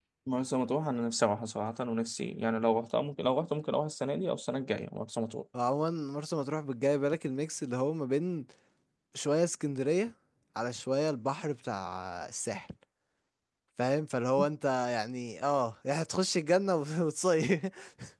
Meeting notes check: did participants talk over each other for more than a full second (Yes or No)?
No